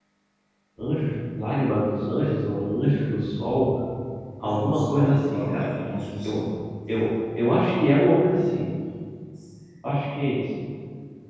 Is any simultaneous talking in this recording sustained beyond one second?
Yes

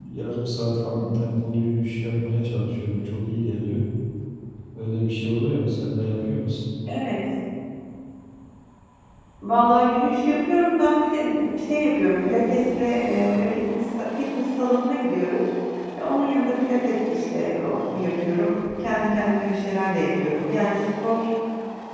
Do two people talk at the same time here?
No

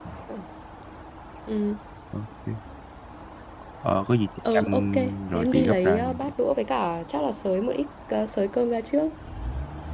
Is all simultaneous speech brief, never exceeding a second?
No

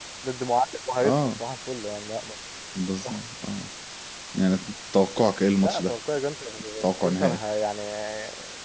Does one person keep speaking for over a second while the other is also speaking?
No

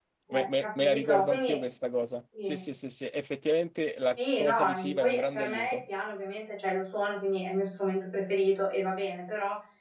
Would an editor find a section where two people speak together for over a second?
Yes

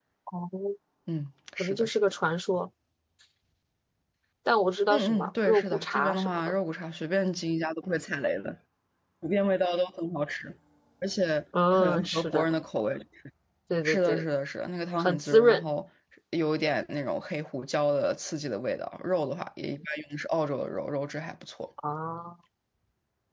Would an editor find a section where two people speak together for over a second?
Yes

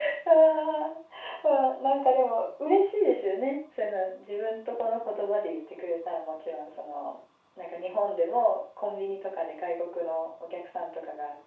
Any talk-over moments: No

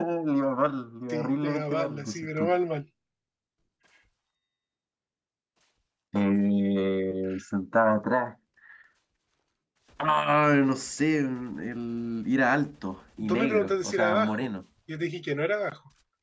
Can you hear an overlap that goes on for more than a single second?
Yes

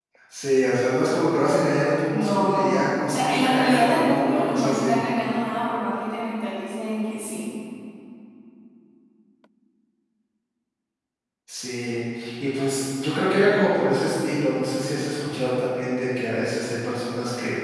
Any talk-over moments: Yes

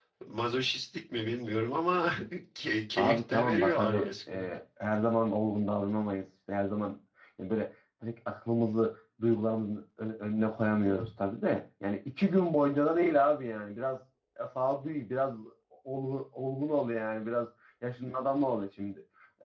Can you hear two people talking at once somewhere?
Yes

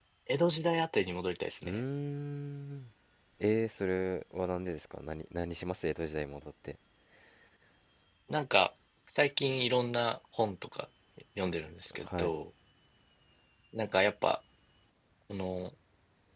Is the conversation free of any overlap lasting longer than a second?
Yes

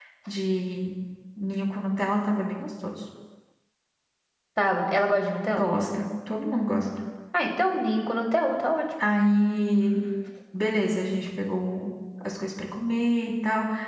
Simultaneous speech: No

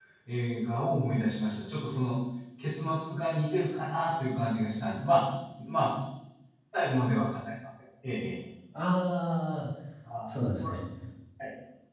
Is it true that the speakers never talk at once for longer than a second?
Yes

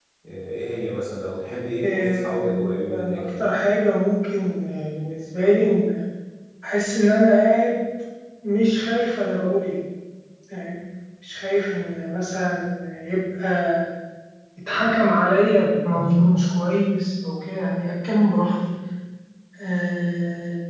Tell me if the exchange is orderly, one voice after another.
No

